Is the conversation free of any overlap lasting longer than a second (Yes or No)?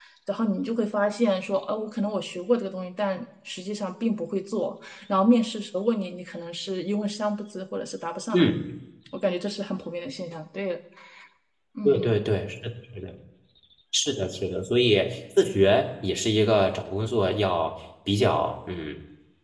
Yes